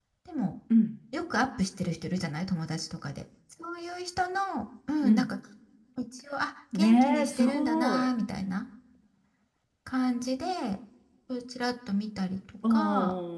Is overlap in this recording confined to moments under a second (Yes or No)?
No